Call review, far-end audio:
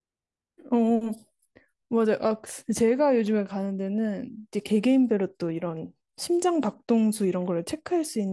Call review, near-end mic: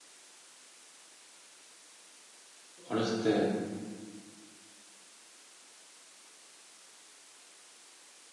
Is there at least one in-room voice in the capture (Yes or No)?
Yes